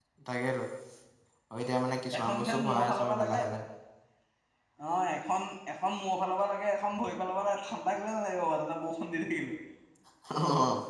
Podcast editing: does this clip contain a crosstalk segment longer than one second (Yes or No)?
Yes